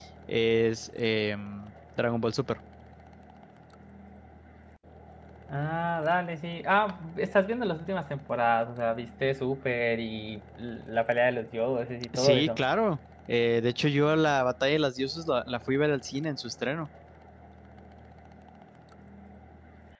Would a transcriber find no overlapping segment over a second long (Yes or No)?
Yes